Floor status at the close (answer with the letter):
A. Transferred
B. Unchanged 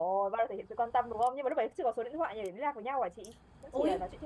A